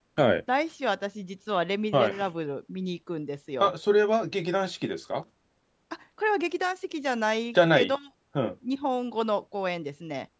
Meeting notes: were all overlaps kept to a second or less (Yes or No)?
Yes